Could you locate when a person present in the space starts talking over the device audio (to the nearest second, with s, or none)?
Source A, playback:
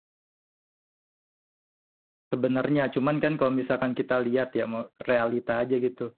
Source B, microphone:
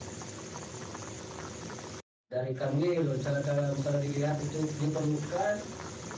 2 s